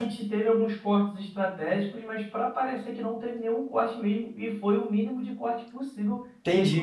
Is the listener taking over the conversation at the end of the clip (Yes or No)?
Yes